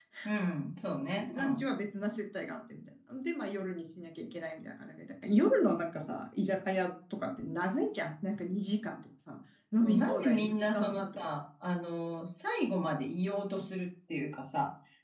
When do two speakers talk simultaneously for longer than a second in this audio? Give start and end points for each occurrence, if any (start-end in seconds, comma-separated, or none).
9.8-11.3